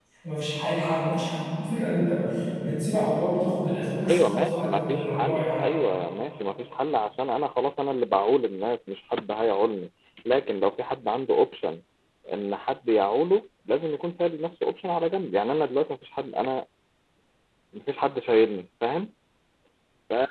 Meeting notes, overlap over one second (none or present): present